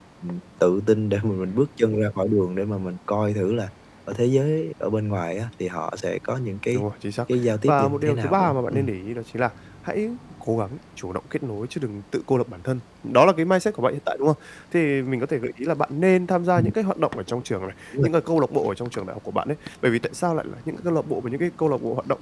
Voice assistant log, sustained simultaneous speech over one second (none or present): present